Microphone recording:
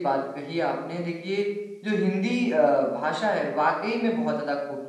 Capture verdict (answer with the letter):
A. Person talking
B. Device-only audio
B